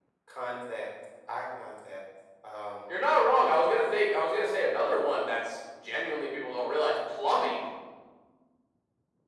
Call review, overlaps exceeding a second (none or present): none